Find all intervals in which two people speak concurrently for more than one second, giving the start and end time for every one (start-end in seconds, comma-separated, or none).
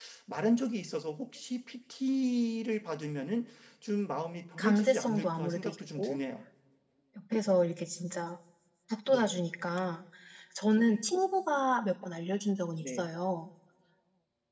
4.6-6.2